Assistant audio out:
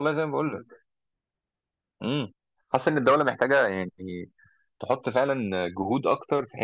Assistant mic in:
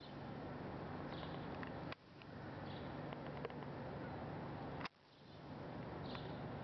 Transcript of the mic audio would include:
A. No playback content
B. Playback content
A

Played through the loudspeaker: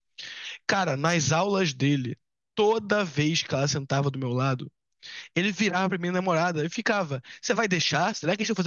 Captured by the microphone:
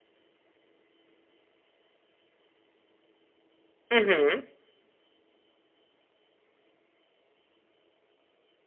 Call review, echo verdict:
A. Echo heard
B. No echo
B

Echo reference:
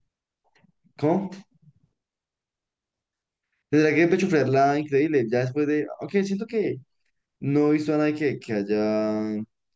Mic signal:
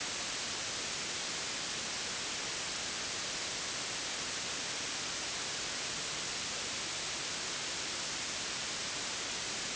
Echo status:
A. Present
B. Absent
B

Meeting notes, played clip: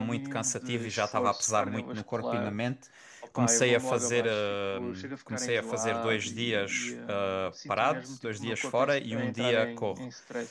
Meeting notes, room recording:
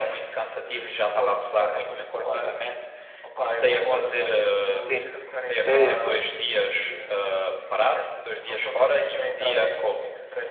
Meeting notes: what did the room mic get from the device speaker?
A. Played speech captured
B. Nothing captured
A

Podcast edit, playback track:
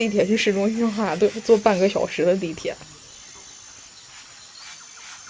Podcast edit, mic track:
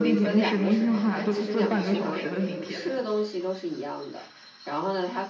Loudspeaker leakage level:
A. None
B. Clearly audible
B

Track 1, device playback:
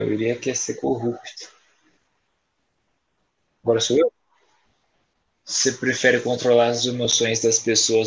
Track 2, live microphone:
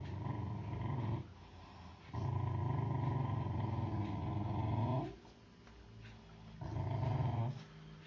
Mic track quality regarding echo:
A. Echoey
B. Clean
B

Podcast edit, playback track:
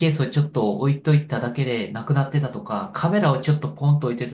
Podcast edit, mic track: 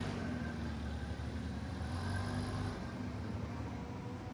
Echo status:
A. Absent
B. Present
A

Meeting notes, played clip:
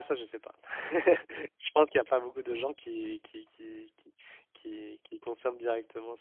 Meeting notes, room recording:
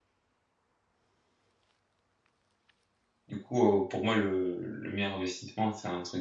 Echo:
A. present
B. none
B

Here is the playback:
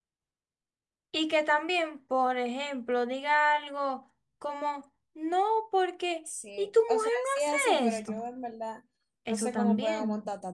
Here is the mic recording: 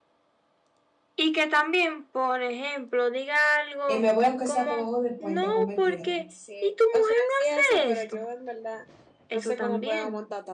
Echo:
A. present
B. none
A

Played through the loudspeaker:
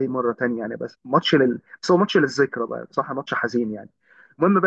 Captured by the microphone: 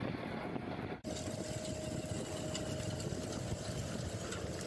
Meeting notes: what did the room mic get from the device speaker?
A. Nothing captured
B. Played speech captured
A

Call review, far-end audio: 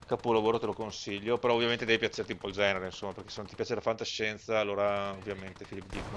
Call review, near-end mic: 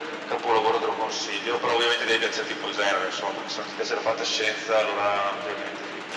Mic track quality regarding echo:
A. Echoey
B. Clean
A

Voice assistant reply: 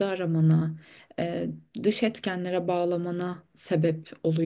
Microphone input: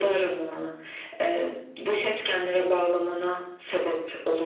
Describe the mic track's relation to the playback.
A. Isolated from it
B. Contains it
B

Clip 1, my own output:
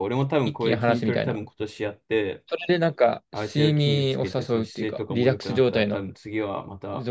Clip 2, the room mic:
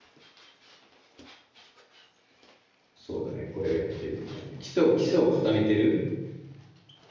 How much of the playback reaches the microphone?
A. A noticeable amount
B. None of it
B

